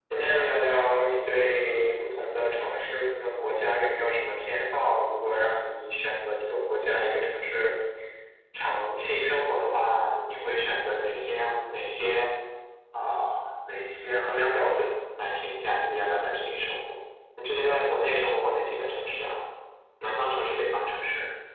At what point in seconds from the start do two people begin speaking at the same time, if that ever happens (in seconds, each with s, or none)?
0.6 s